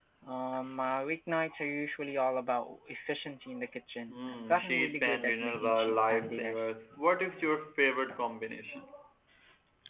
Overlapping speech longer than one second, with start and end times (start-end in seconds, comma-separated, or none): 4.1-6.7